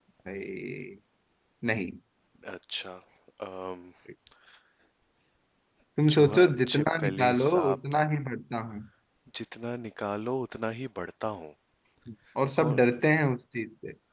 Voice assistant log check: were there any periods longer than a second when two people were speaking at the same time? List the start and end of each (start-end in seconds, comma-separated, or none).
6.1-7.8